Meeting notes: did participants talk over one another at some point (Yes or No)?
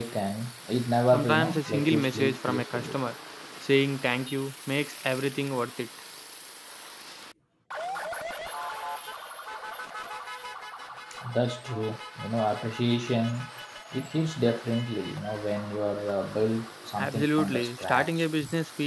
Yes